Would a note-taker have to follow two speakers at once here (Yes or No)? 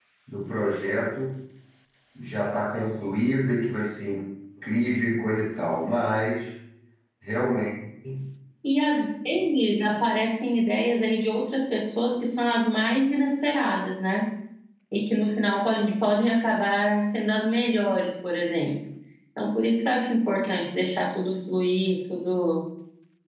No